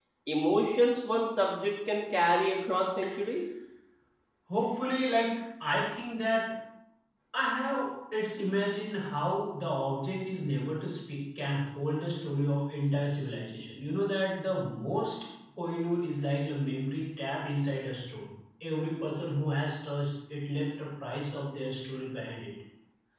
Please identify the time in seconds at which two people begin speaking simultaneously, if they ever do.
none

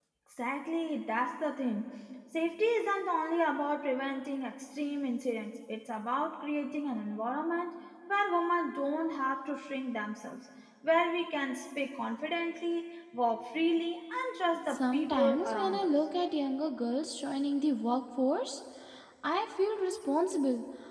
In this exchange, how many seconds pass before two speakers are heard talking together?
14.7 s

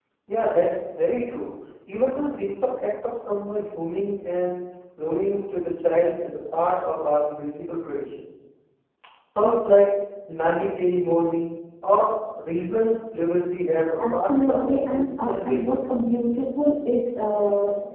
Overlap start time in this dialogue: 14.0 s

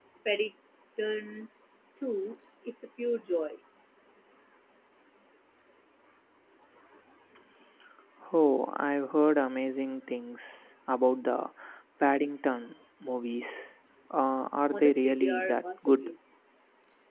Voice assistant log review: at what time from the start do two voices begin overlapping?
14.7 s

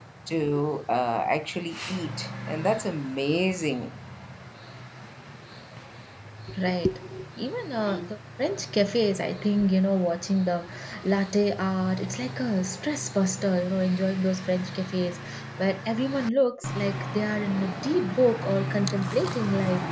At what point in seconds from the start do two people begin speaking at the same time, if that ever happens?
none

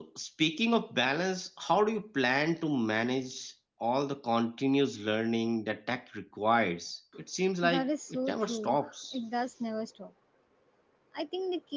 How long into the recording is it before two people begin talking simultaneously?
7.6 s

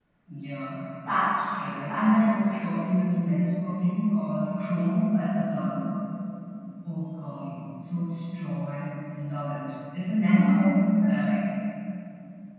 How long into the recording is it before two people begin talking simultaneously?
1.6 s

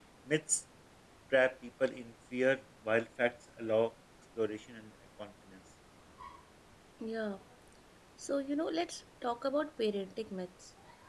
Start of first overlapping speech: none

